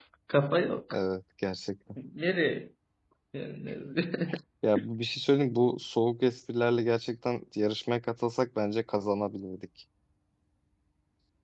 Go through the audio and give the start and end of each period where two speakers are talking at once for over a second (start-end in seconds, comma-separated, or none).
none